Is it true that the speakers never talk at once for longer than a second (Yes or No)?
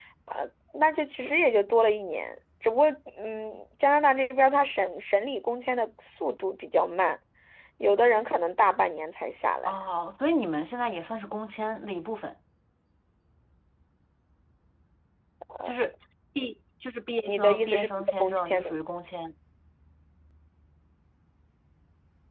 No